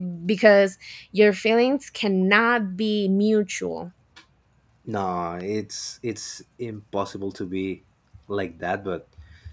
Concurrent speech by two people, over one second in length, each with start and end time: none

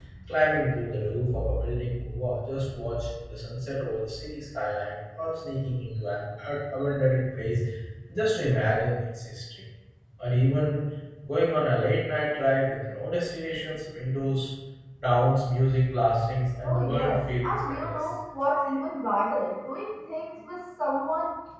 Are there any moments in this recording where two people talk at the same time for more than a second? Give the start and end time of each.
16.6-18.1

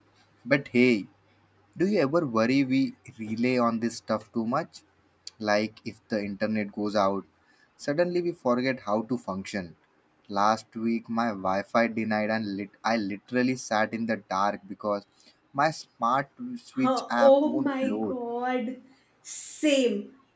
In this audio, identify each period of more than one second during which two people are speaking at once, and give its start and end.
16.8-18.1

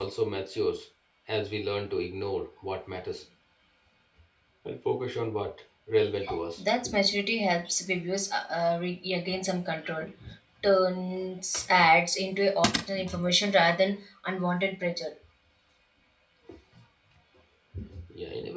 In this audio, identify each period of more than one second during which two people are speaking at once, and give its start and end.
none

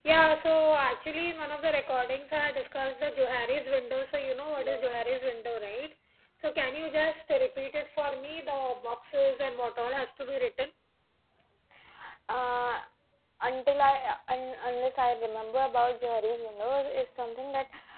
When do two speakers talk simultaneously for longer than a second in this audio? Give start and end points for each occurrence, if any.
none

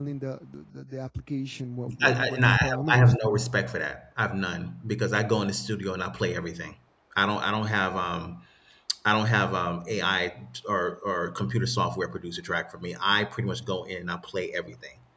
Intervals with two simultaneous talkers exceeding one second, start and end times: 2.0-3.4

